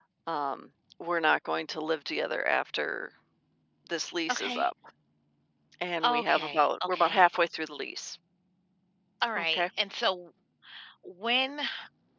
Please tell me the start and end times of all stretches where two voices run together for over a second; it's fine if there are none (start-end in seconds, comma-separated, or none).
6.0-7.3